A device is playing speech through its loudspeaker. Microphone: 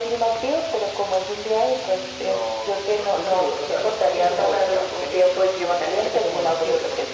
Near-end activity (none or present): none